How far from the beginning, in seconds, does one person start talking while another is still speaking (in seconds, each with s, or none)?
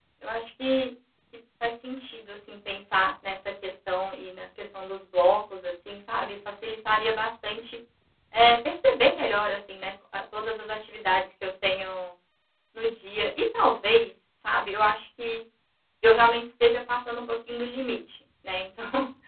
none